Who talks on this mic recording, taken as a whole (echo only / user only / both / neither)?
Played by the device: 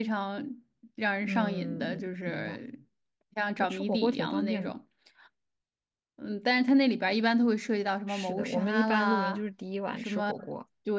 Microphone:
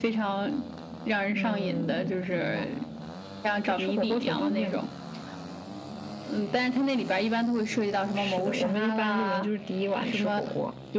echo only